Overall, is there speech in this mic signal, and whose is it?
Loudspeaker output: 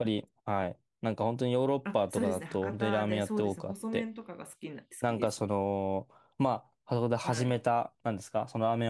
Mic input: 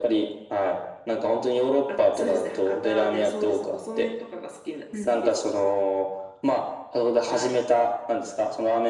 both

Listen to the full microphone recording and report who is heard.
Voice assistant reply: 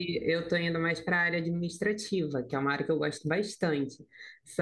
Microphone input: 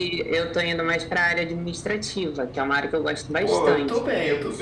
both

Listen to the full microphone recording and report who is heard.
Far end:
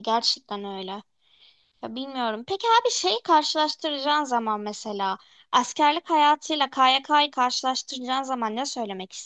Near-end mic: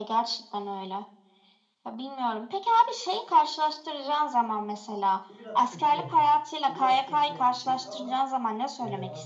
both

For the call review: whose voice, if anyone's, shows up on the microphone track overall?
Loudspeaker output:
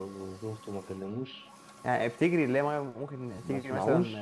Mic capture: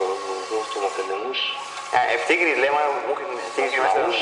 echo only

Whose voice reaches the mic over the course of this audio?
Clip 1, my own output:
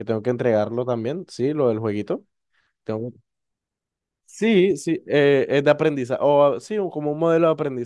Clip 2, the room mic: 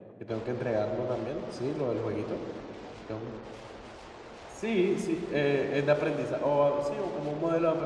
echo only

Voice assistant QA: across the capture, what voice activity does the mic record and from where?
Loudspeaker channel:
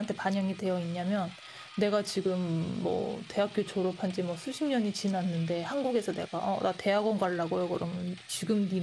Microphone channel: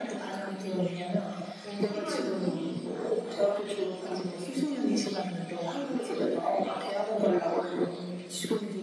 both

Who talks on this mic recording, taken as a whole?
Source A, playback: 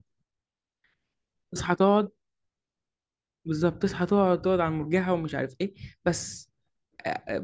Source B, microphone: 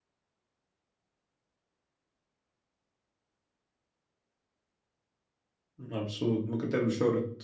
user only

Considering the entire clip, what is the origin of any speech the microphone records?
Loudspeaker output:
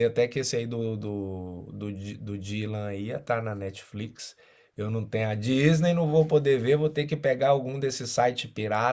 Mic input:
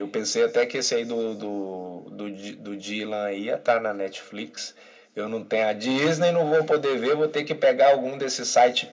echo only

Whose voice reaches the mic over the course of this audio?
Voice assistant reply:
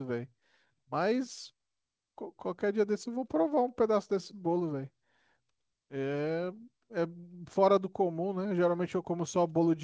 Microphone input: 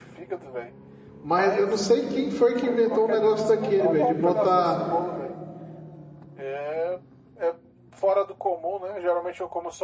both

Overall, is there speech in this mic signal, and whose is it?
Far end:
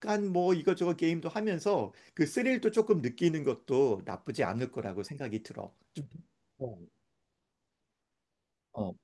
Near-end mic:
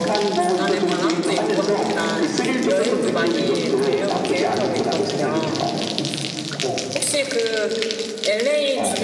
both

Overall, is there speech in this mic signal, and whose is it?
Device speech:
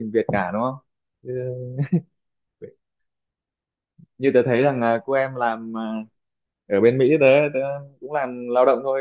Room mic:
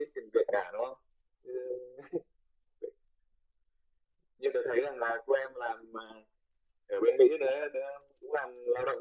echo only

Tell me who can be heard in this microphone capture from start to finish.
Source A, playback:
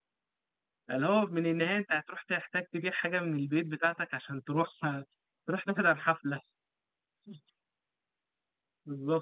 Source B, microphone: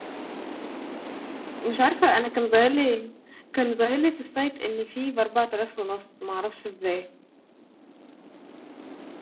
user only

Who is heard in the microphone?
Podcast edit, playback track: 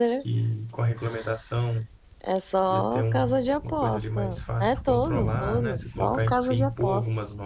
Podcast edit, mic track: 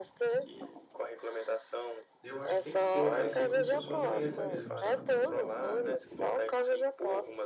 both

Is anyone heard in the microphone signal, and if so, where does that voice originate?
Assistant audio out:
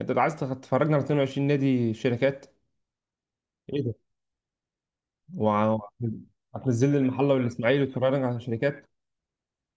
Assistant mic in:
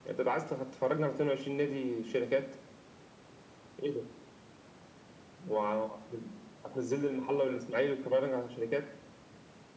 echo only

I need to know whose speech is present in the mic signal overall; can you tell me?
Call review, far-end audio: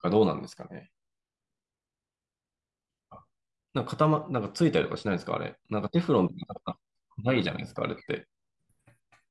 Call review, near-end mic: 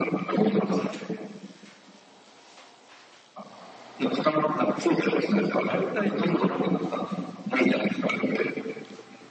both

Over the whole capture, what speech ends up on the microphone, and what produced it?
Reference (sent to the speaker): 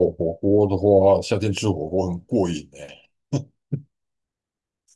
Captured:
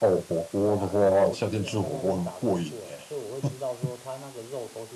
both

